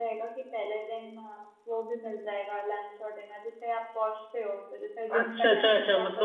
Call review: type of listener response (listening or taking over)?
taking over